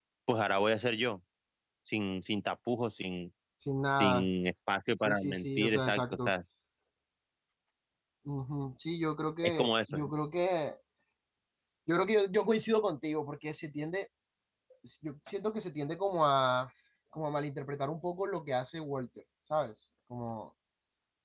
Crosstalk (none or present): present